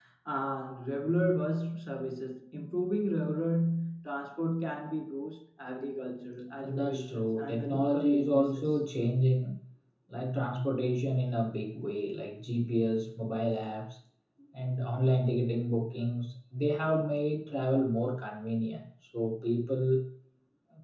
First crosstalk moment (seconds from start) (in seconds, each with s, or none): 6.6 s